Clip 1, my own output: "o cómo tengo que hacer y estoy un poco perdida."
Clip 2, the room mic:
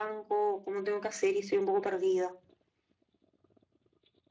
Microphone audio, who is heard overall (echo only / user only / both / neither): echo only